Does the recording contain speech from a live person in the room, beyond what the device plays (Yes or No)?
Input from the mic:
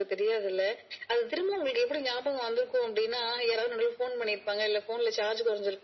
No